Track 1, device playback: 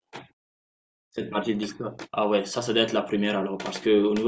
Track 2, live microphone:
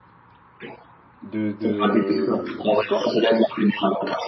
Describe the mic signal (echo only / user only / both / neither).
both